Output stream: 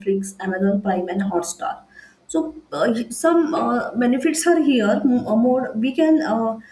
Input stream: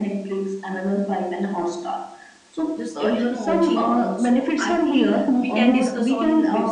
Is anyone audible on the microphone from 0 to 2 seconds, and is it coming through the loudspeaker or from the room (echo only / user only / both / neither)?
echo only